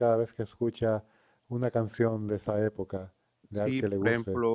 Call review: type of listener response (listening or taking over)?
taking over